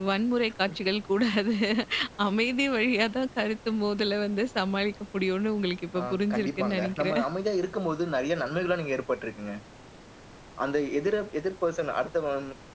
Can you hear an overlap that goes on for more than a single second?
Yes, from 6.0 s

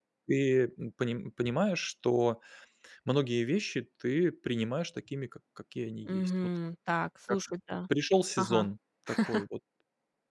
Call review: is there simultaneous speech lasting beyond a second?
No

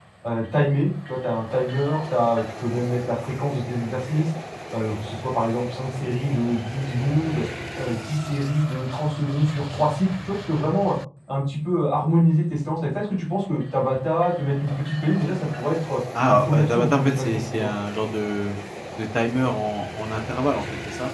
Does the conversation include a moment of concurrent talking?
Yes, from 16.1 s

